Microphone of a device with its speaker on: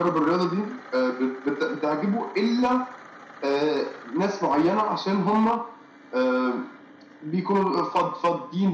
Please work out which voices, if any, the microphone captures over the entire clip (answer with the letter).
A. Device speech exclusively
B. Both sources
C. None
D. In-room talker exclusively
A